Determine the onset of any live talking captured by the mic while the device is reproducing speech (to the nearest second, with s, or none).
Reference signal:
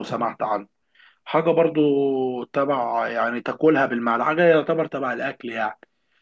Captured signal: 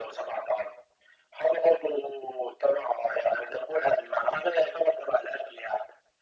none